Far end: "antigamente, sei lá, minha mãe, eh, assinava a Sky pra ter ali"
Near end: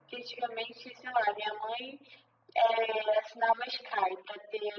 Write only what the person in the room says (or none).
none